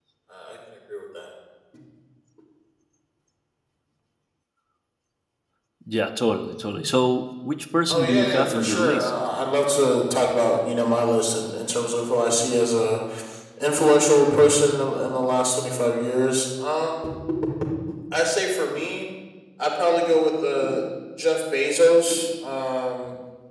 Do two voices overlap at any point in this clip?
Yes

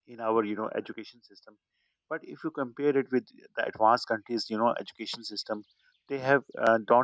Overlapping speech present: No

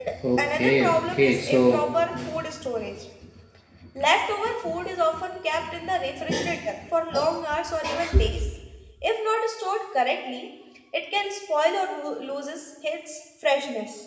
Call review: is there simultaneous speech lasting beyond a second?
Yes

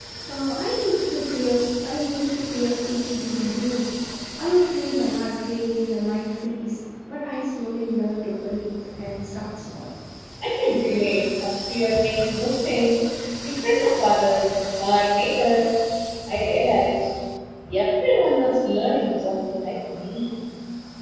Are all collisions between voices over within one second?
Yes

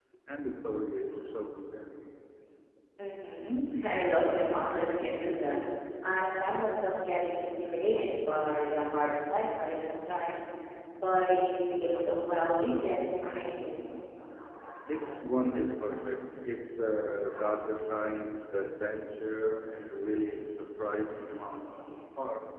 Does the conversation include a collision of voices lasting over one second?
No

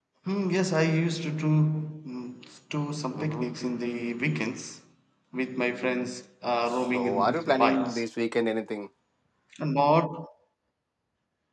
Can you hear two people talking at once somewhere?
Yes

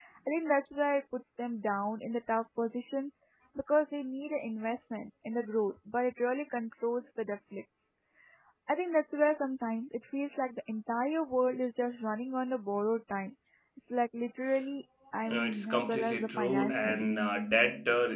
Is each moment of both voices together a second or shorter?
No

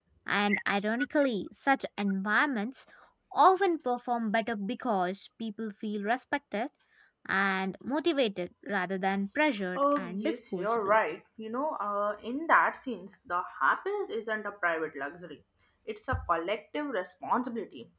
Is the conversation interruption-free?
No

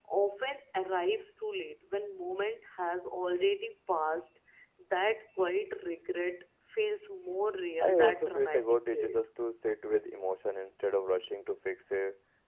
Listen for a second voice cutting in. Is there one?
Yes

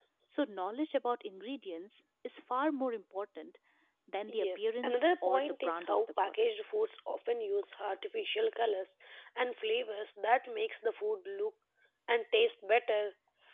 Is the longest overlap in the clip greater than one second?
Yes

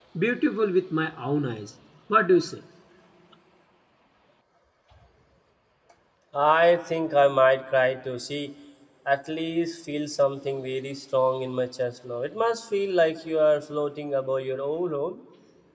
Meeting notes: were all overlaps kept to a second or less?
Yes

